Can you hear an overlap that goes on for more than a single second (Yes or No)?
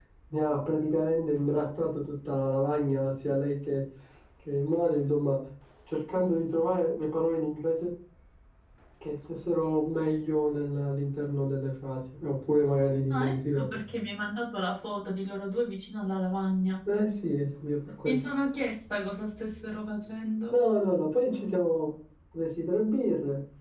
No